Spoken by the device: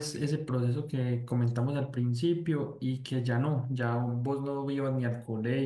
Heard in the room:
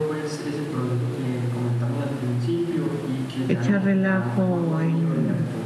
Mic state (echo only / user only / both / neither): both